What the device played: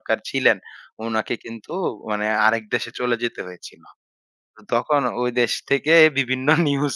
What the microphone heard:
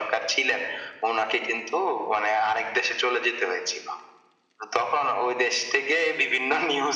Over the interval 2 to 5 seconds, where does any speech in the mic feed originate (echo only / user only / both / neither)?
echo only